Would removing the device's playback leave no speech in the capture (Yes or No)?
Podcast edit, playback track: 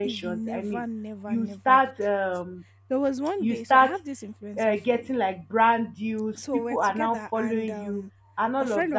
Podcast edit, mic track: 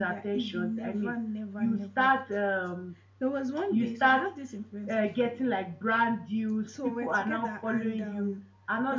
Yes